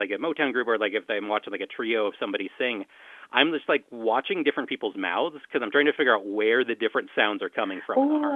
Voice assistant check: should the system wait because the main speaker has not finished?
No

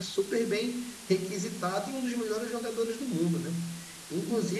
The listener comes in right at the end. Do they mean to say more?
No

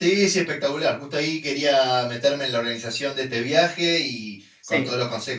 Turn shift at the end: No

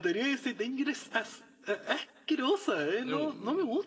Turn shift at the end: Yes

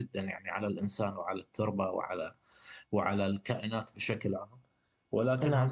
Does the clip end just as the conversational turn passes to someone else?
Yes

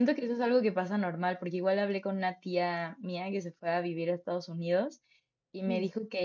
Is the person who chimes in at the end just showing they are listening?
Yes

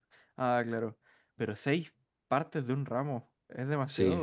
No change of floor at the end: No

